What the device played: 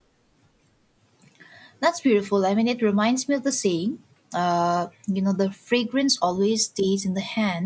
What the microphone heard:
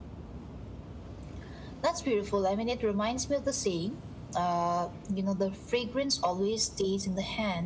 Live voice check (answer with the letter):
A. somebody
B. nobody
B